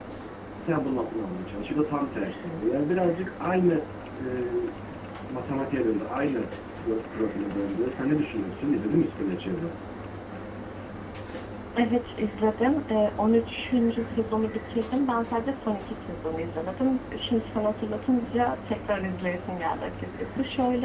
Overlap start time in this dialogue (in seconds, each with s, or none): none